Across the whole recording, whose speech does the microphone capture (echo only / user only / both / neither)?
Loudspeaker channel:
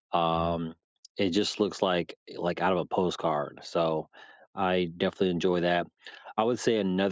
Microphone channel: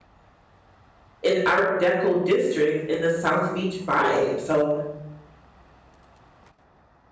user only